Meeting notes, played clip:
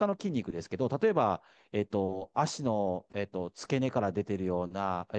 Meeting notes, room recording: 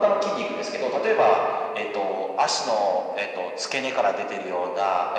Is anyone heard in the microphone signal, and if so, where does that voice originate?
echo only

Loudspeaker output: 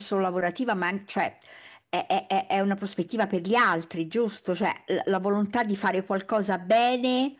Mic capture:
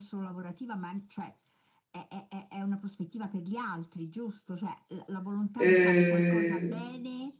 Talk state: both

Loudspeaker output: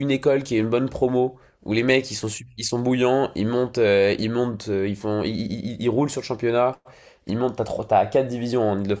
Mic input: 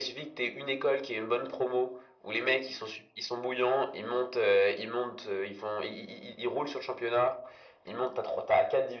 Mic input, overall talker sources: echo only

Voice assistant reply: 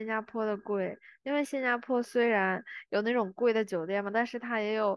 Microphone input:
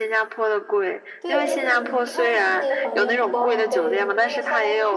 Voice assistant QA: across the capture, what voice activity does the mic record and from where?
both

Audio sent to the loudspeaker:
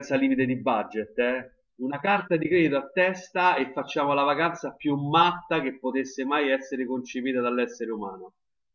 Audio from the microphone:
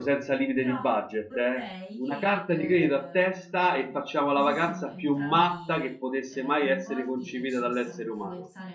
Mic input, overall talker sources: both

